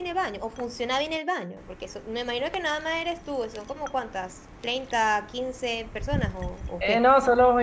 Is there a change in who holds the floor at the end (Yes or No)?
Yes